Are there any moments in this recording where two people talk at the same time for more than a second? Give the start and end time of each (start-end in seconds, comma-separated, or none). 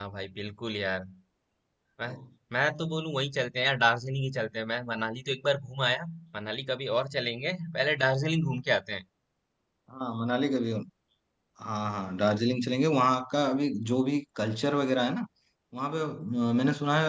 none